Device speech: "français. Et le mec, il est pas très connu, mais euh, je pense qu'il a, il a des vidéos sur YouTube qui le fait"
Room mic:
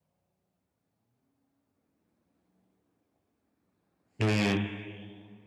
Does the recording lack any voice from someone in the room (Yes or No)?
No